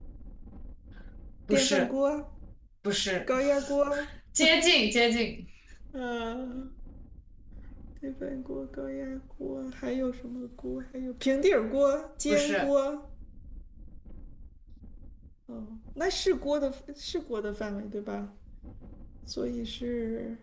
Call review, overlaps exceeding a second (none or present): none